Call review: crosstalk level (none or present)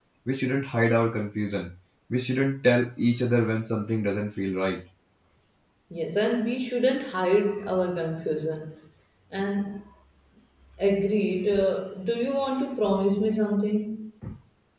none